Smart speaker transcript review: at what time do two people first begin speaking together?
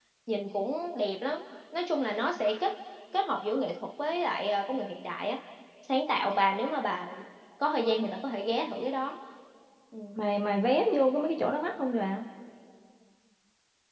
none

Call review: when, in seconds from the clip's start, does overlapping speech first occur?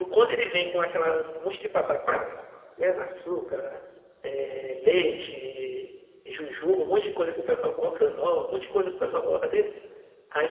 none

